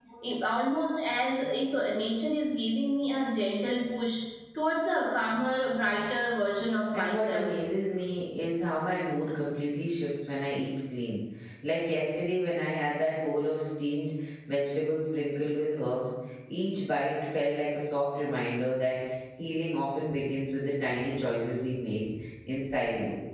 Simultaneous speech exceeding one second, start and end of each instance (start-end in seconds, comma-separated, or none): none